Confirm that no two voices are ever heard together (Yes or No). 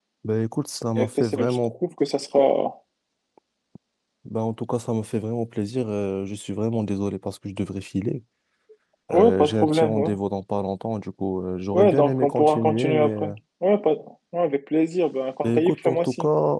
No